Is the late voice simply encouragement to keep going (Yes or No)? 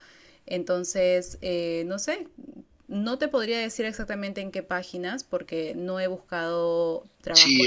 No